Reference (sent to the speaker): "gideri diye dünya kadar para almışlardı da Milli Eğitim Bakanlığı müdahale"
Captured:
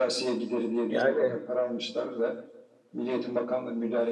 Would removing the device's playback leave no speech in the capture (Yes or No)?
No